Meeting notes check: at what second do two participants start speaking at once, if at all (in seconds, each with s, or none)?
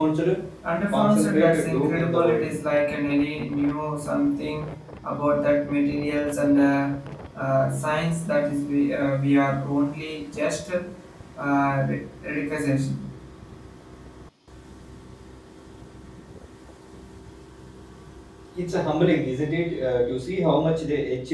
0.9 s